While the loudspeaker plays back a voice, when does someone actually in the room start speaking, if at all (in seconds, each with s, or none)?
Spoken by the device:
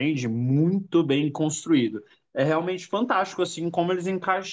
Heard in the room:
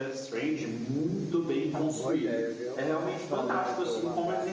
1.7 s